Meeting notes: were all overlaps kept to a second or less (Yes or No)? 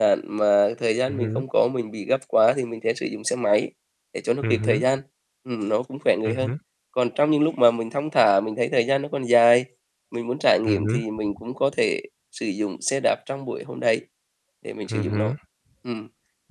Yes